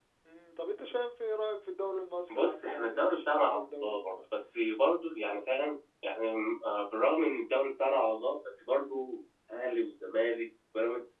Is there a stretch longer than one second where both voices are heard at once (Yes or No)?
Yes